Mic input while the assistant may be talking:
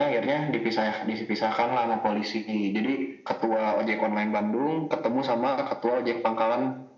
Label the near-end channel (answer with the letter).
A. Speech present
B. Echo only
B